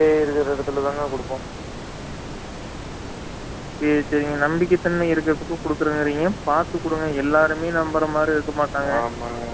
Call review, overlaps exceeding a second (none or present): none